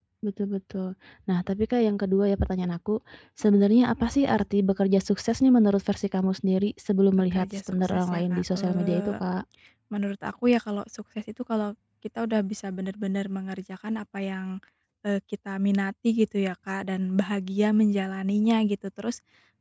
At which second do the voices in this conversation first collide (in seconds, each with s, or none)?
7.3 s